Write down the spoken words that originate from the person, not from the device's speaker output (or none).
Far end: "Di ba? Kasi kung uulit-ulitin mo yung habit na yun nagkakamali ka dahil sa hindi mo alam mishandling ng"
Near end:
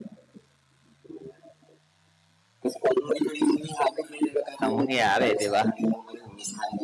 ang mangyayari di ba?